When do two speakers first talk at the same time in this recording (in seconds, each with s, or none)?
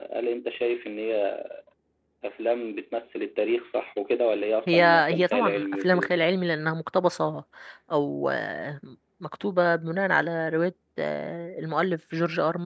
4.7 s